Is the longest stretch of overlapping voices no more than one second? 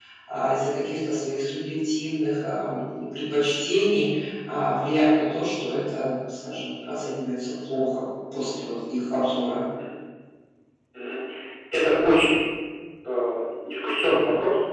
Yes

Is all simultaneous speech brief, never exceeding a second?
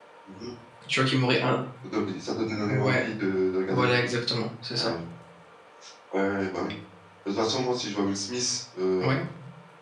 Yes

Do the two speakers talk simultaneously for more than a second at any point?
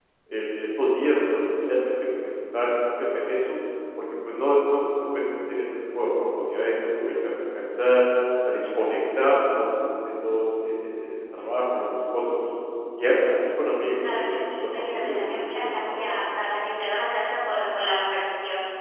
Yes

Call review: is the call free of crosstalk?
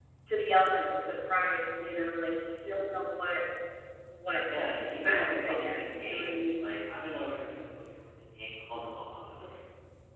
No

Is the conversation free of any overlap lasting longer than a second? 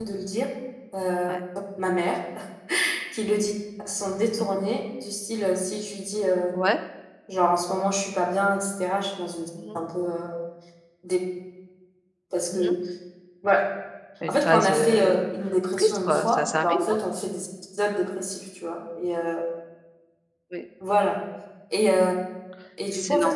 No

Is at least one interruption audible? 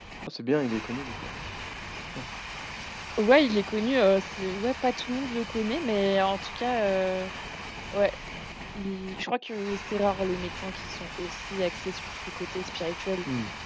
No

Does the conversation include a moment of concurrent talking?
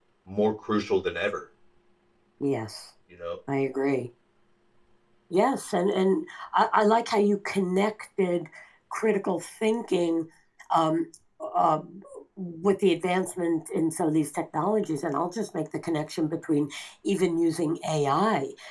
No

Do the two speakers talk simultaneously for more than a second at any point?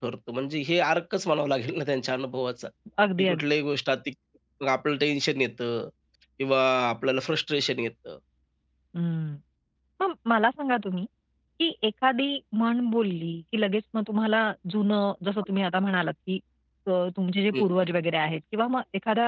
No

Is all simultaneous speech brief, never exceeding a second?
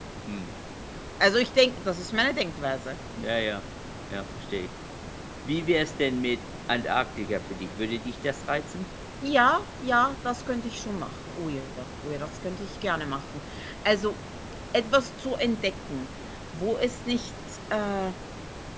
Yes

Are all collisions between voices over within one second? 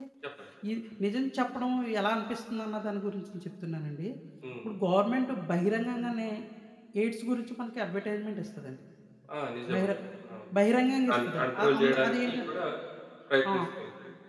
No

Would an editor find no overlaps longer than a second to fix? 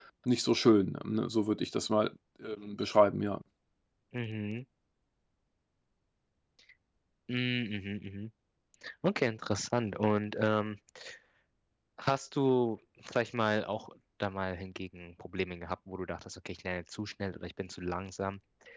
Yes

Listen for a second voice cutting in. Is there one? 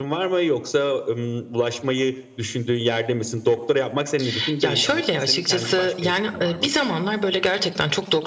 Yes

